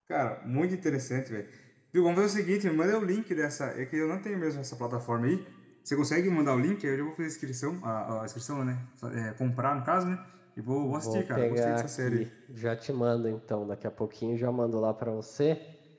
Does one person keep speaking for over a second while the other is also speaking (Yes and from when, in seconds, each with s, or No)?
Yes, from 10.8 s